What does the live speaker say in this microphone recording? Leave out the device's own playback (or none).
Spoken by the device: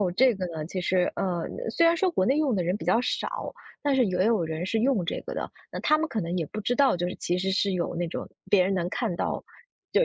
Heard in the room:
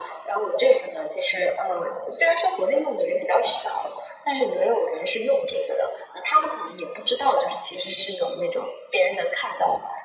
none